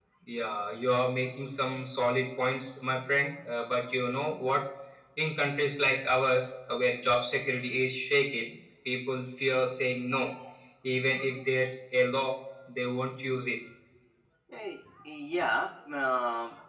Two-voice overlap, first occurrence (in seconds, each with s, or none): none